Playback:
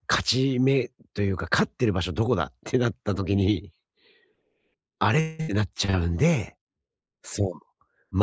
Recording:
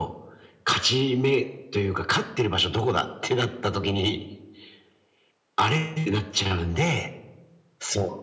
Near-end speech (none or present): none